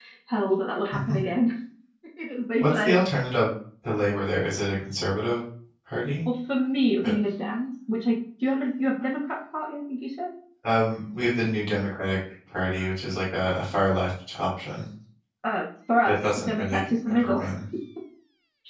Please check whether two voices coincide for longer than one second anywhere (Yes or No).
Yes